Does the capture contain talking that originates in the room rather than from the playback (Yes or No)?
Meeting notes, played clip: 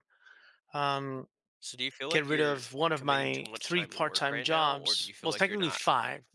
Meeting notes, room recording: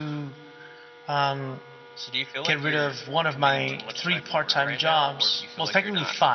No